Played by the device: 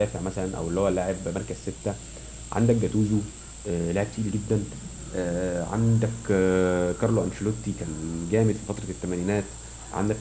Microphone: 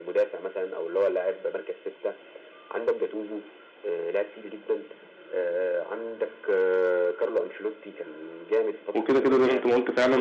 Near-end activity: present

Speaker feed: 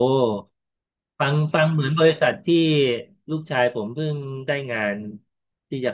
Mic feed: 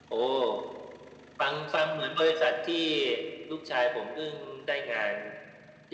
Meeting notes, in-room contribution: none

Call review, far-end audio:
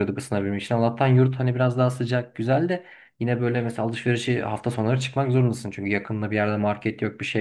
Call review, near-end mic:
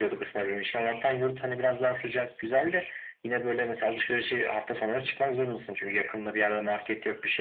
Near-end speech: none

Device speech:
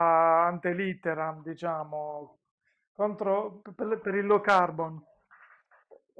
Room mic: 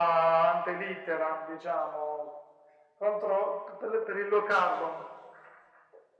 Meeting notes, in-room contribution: none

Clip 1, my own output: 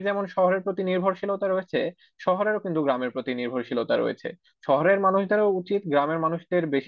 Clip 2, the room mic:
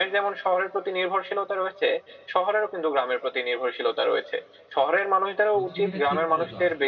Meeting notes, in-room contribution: present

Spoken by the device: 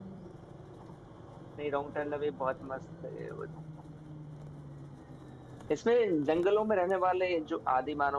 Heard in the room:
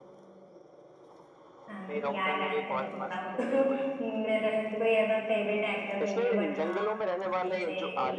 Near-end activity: present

